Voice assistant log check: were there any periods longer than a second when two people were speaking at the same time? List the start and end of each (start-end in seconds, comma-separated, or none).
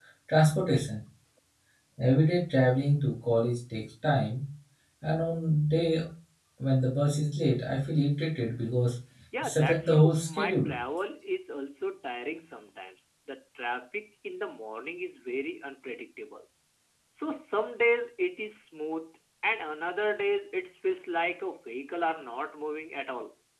9.4-10.7